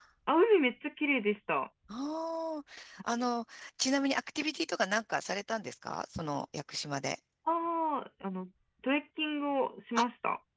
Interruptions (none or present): none